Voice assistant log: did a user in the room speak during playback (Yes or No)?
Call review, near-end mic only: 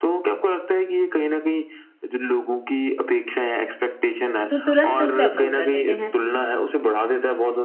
Yes